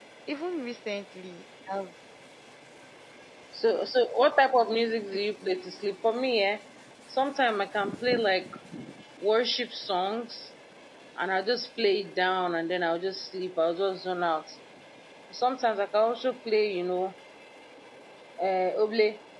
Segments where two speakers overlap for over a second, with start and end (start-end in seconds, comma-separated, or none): none